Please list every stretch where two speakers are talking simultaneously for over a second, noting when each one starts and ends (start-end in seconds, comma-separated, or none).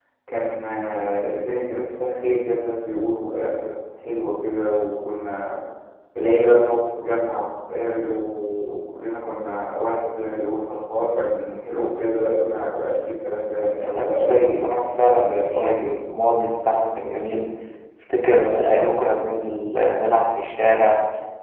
13.8-16.0